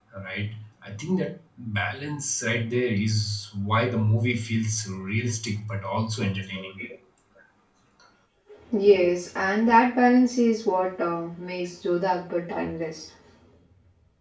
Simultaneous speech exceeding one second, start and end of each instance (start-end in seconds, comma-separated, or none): none